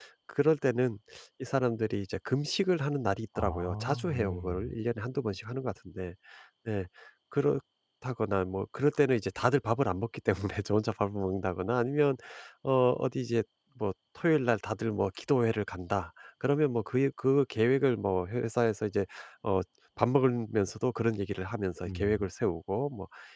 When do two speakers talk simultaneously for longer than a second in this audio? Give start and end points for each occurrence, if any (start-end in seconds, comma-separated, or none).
3.4-4.8